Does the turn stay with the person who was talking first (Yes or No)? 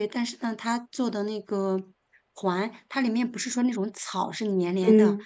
Yes